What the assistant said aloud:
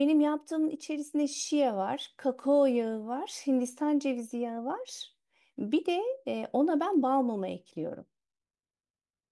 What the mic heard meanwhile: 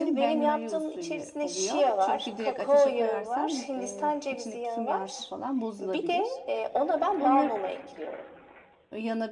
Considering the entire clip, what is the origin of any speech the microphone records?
both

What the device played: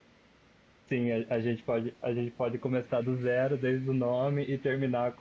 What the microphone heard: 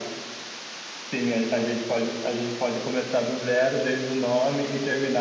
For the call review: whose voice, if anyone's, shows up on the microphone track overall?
echo only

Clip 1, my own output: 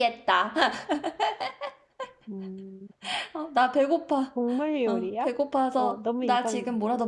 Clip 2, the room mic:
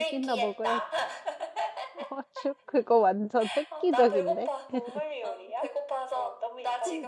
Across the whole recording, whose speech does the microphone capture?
both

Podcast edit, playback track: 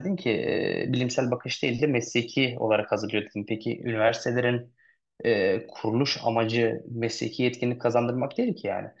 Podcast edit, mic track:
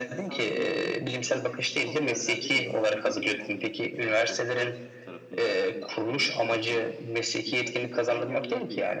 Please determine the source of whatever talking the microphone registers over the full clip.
both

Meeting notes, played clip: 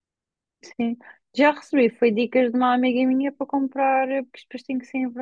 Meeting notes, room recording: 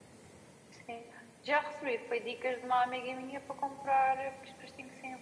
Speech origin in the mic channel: echo only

